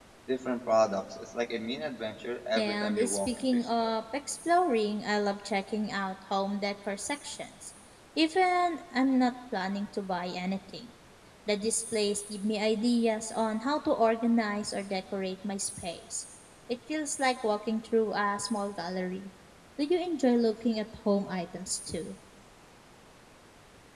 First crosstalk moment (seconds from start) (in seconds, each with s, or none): 2.6 s